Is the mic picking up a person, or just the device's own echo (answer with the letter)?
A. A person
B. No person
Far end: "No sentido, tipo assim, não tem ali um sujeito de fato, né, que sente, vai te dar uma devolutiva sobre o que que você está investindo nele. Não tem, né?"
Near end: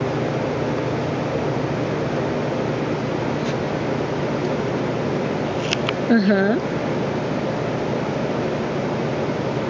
A